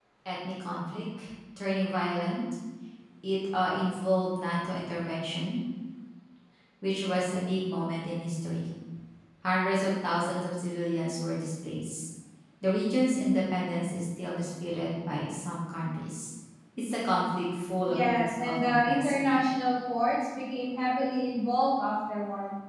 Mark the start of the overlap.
17.9 s

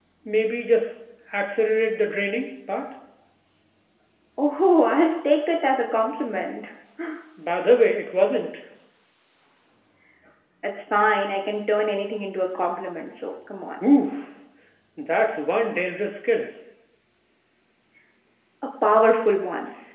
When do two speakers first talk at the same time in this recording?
none

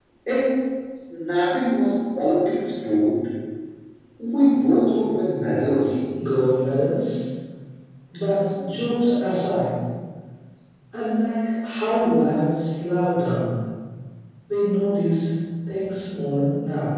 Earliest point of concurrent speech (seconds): none

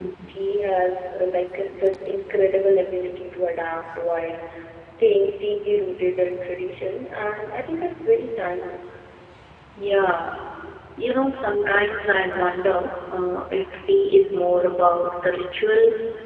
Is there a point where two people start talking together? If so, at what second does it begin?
none

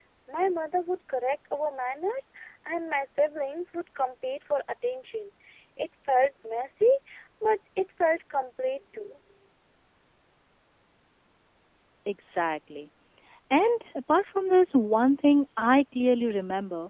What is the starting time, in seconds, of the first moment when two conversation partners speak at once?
none

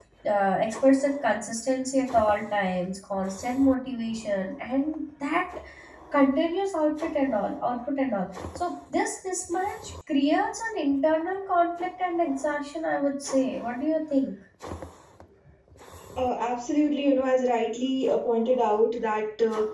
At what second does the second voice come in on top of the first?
none

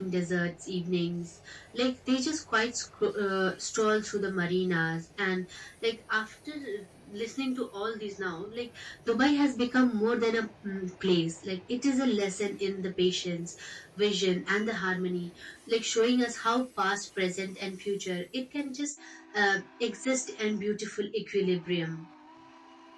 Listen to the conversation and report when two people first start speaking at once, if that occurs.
none

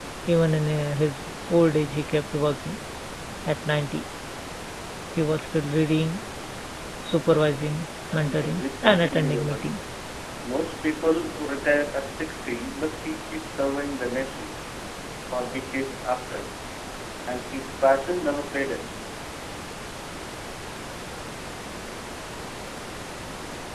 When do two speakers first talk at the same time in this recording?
8.2 s

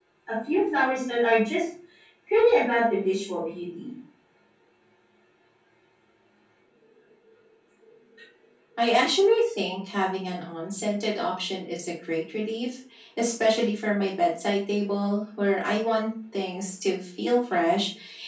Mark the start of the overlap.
none

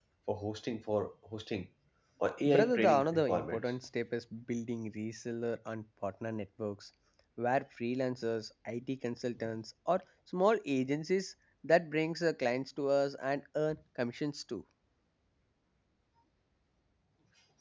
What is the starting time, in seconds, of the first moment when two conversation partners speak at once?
2.5 s

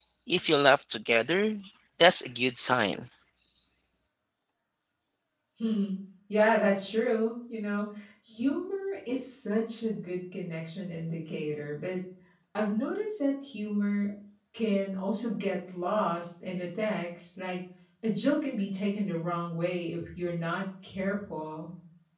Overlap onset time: none

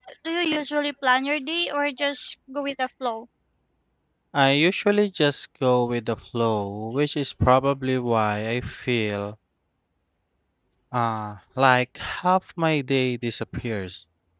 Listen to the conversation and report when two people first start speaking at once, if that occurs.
none

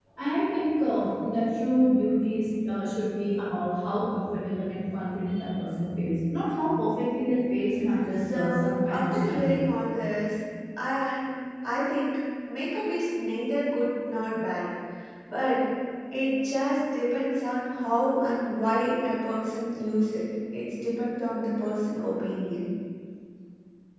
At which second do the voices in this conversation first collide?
8.3 s

